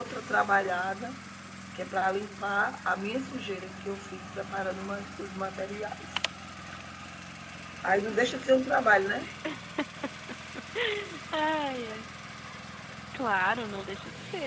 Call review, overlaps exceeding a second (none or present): none